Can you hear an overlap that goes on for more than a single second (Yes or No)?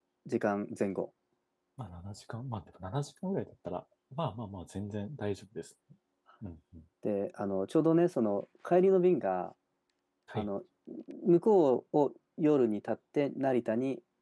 No